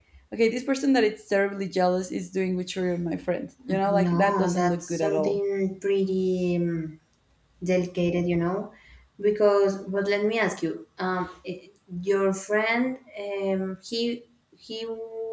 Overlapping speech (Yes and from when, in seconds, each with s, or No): Yes, from 3.6 s